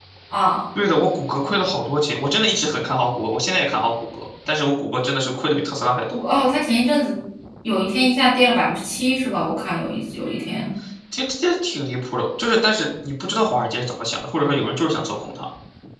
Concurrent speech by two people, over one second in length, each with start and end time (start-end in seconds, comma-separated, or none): none